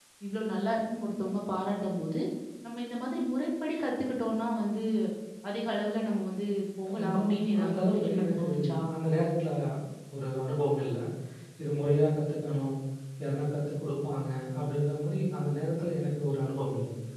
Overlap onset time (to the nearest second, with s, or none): 7 s